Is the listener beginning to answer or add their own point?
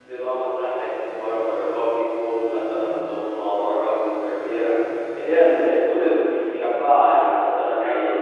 No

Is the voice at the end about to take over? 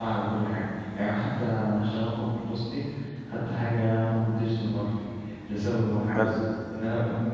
No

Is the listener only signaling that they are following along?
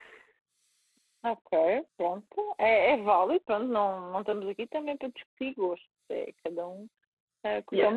Yes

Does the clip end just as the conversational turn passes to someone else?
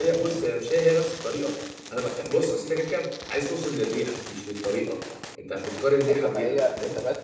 Yes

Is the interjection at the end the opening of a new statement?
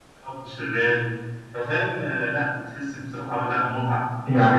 Yes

